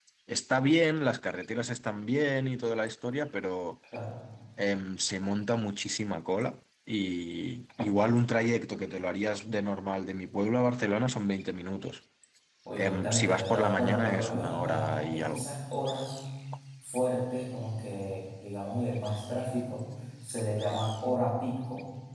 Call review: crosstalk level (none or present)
present